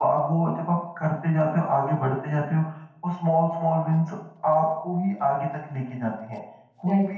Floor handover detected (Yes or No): No